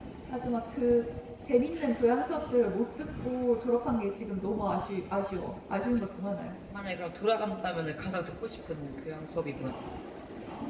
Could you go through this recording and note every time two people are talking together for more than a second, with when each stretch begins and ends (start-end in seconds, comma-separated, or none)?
none